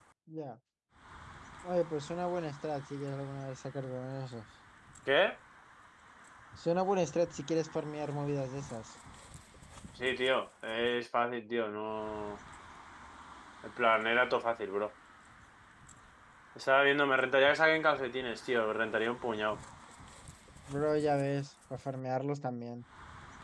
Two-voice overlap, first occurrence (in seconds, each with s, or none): none